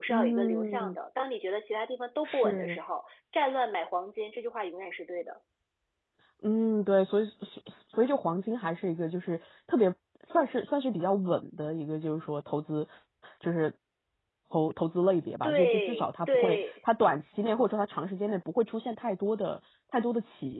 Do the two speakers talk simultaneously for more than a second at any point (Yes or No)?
Yes